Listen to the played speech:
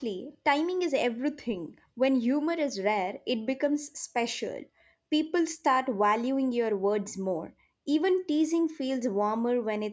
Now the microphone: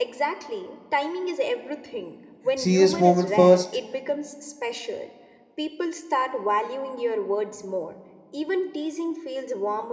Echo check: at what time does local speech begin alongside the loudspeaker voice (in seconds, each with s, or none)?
2.5 s